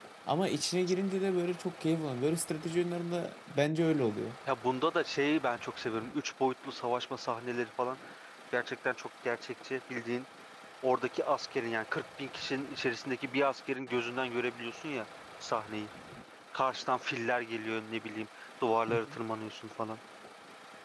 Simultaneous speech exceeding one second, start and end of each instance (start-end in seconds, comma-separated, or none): none